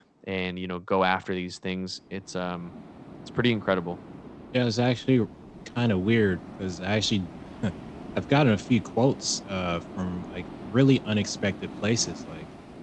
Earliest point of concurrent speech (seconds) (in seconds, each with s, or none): none